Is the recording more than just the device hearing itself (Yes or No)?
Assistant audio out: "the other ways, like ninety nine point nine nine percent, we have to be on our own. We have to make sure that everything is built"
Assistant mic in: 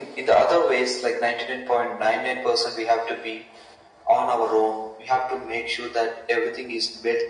No